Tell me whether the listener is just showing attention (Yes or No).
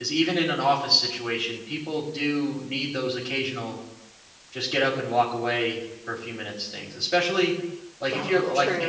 Yes